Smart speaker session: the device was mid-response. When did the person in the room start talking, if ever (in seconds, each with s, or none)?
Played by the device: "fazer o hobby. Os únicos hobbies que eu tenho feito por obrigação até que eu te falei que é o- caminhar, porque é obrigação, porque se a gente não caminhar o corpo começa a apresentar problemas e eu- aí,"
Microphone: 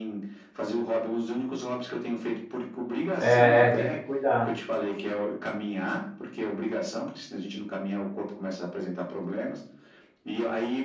3.2 s